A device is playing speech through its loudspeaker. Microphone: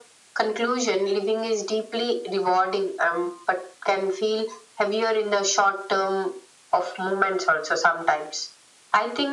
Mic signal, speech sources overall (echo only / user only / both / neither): echo only